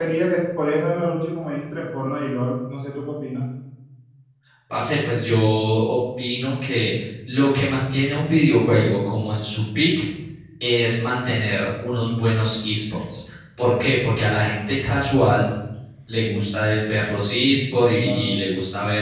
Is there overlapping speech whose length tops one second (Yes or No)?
No